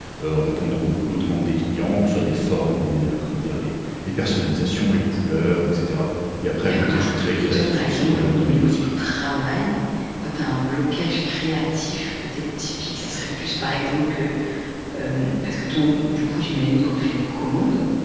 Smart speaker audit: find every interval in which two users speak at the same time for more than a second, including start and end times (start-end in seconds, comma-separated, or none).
6.6-8.8